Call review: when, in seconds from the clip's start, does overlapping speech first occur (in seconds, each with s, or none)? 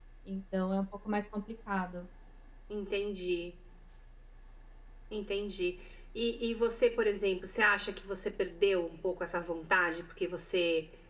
none